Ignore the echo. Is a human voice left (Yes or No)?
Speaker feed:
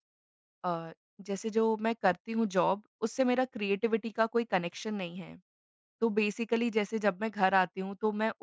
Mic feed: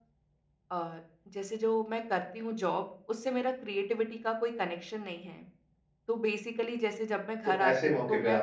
Yes